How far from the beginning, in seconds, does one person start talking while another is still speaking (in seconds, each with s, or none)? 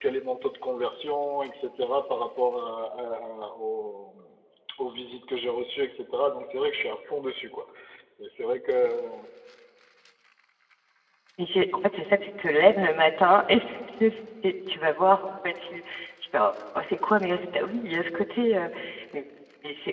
none